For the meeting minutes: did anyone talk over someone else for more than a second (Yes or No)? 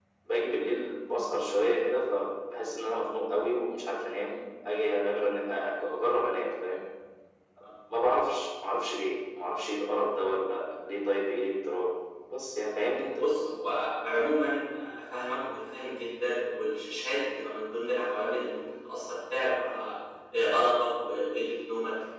No